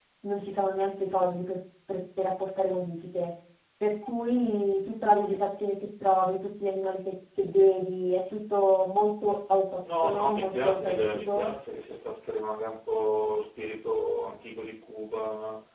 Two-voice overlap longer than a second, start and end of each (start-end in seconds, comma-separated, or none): 10.0-11.5